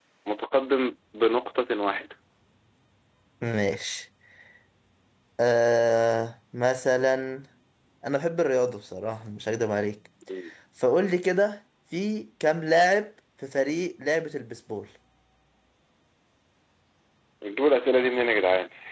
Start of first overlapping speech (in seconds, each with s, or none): none